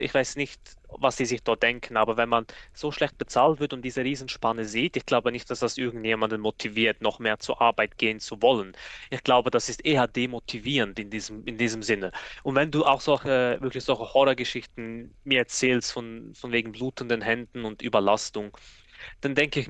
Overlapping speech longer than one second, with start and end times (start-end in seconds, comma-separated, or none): none